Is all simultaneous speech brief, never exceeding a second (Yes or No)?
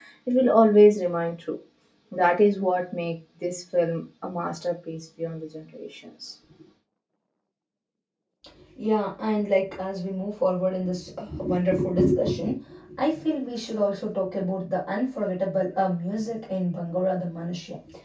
Yes